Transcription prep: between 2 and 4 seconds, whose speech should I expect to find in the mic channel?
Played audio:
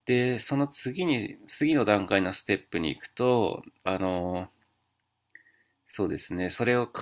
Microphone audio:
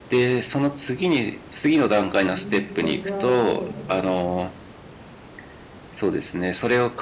both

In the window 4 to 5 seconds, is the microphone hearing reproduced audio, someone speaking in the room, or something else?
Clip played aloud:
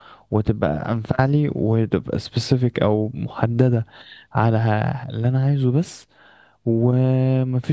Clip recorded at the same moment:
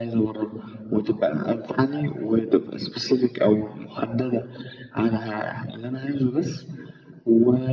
echo only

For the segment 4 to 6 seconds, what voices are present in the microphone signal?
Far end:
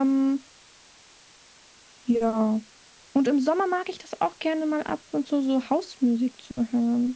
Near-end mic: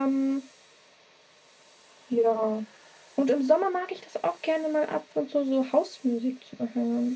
echo only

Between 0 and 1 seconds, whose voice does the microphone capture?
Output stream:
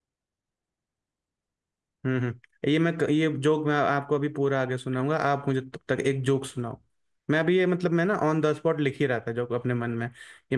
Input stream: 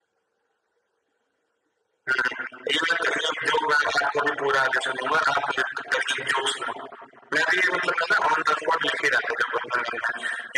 neither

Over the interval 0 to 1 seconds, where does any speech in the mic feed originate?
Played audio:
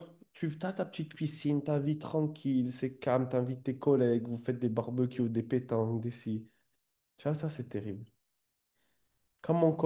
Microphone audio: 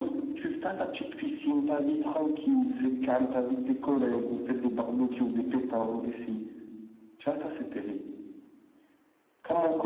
echo only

